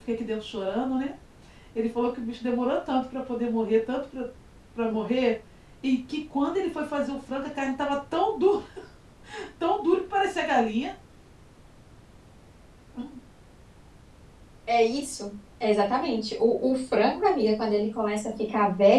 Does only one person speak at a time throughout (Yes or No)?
Yes